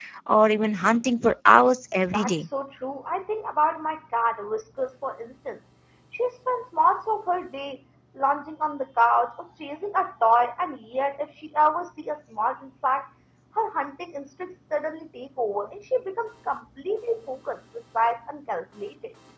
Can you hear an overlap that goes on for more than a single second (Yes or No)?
No